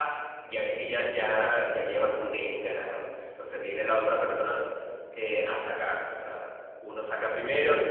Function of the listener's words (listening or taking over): listening